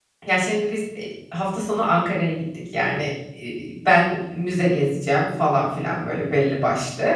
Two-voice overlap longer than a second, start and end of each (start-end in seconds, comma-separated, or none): none